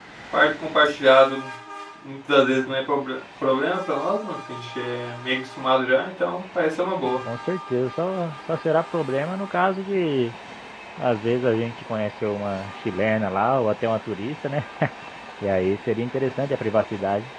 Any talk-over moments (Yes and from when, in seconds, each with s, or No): No